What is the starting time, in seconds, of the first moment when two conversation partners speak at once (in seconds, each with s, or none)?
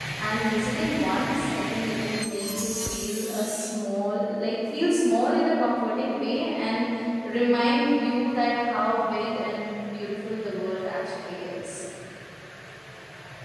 none